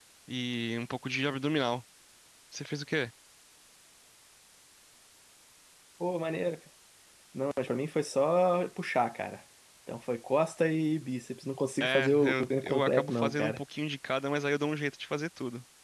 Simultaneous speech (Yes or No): Yes